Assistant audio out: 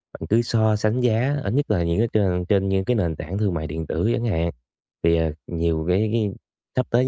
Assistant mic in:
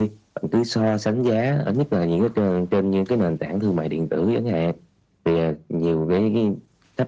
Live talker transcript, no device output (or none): none